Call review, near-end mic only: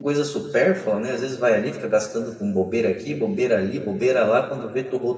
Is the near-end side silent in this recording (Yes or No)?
No